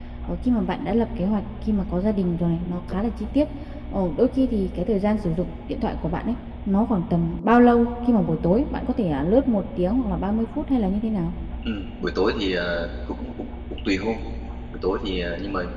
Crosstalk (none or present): none